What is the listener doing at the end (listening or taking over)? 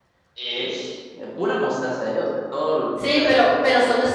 taking over